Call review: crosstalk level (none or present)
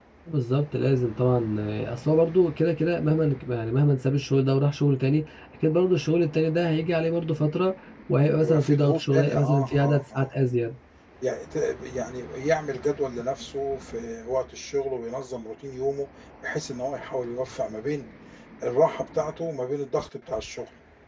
present